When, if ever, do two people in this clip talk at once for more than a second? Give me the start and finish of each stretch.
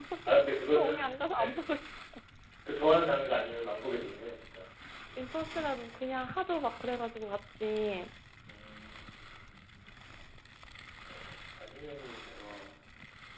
none

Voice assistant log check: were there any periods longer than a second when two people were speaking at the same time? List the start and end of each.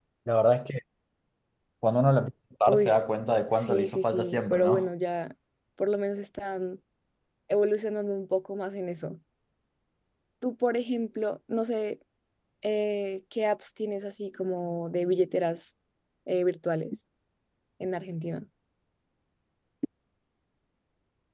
3.5-4.9

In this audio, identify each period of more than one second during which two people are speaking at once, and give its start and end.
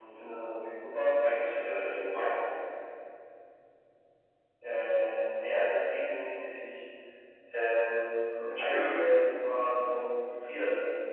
8.7-10.2

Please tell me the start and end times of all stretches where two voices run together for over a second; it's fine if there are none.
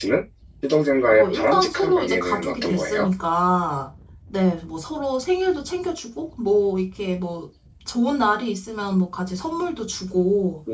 1.1-3.1

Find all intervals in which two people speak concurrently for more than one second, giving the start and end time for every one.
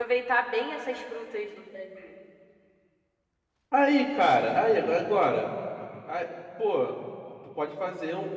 none

